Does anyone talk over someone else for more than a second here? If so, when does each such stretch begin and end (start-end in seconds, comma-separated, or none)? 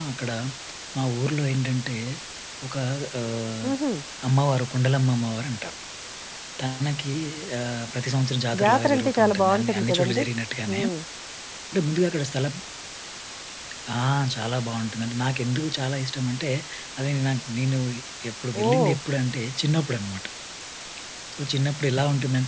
8.6-10.2